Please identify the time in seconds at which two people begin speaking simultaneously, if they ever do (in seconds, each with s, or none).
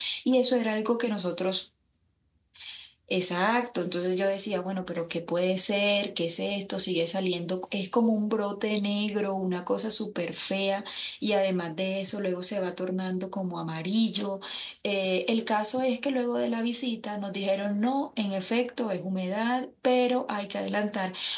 none